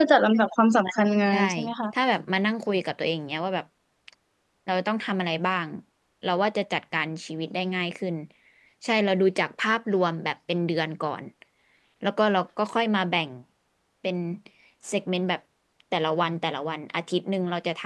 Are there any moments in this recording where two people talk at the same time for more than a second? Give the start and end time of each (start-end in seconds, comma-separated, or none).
none